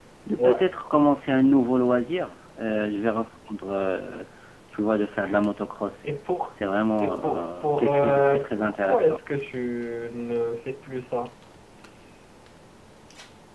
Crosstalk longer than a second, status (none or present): present